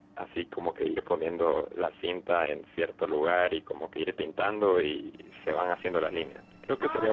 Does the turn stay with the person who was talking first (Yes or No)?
No